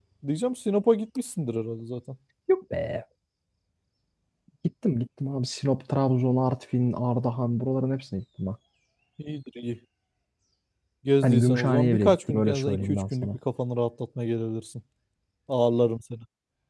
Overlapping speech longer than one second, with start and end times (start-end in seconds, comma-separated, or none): 11.2-13.4